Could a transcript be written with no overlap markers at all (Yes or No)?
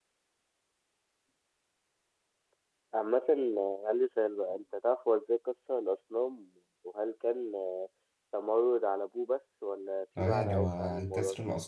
No